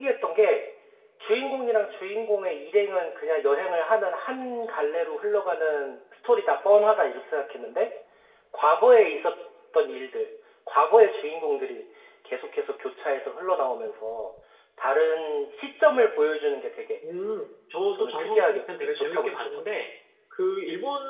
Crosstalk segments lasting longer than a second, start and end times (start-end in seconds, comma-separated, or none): 17.9-19.9